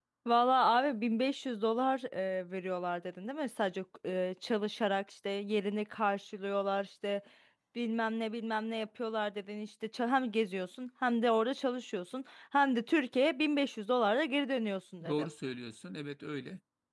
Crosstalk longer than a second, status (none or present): none